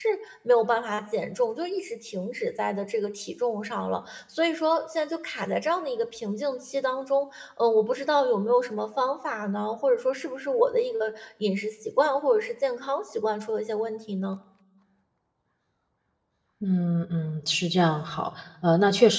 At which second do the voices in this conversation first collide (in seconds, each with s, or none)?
none